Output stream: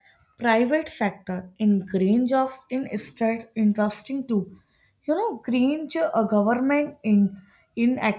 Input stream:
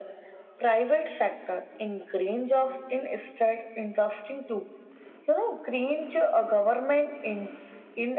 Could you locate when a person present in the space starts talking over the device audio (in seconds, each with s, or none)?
none